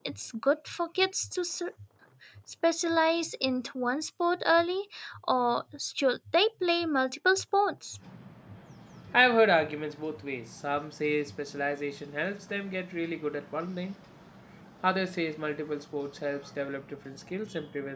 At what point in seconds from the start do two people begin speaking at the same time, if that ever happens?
none

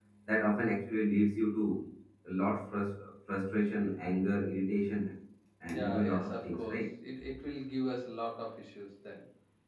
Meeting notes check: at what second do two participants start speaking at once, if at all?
5.7 s

